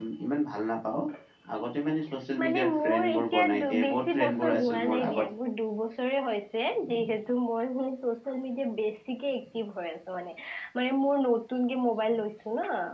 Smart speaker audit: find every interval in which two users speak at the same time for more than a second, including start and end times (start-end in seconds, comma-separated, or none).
2.4-5.2